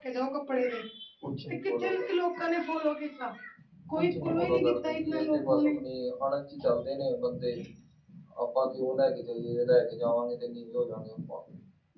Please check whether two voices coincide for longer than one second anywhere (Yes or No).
Yes